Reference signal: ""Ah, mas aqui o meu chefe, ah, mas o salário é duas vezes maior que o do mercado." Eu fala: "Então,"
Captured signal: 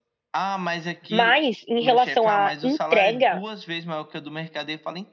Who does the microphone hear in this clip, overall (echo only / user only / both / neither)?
both